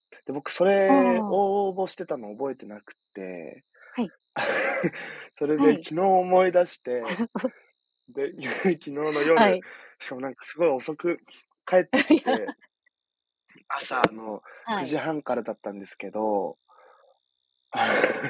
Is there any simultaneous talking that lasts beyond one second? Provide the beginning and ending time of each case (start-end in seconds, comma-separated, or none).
none